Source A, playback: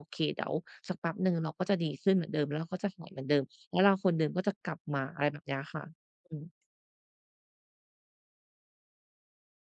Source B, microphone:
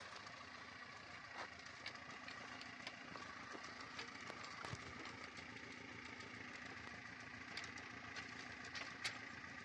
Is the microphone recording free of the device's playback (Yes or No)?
Yes